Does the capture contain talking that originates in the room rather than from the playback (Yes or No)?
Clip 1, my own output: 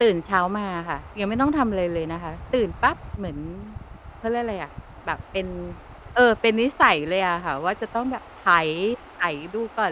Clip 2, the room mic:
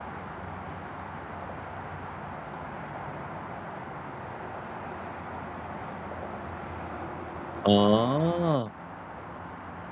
Yes